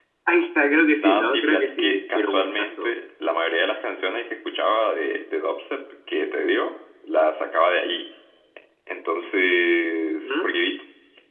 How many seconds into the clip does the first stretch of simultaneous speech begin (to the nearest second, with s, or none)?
1 s